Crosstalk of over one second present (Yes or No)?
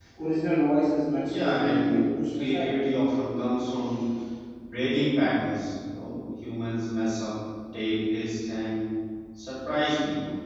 Yes